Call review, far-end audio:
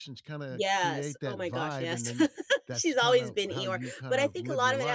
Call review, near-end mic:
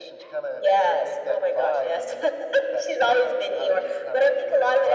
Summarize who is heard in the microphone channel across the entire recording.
echo only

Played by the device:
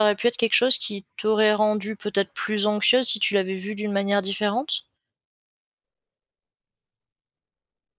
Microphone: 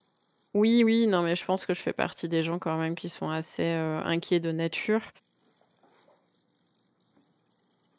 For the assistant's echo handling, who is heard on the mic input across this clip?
user only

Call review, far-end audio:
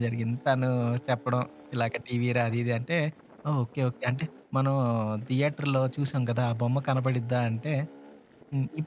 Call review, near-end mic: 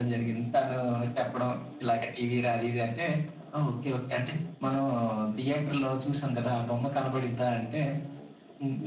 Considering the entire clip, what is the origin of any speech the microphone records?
echo only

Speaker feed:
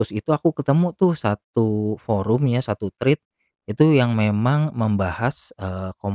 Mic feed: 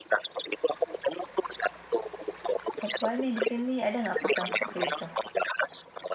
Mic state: both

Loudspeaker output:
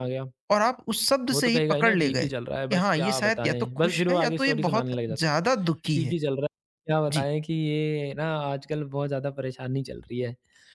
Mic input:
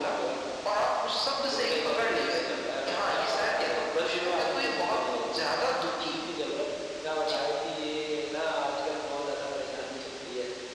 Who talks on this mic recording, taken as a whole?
echo only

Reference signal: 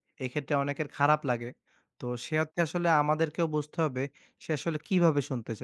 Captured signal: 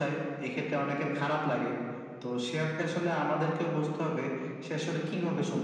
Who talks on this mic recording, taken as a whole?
echo only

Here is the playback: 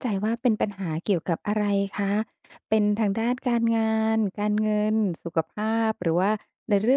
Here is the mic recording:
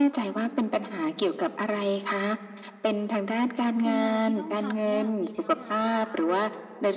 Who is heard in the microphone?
both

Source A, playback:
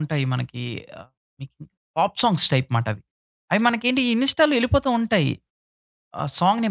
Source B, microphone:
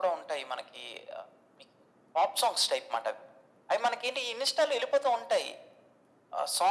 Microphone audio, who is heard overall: echo only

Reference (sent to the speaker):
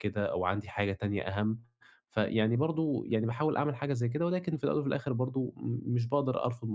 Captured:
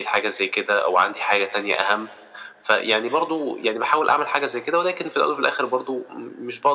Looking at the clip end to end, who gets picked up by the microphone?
echo only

